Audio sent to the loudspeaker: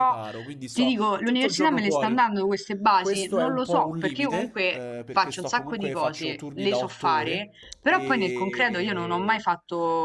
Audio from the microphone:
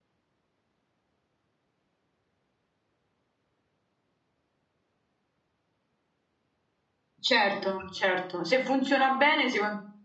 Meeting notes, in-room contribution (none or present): present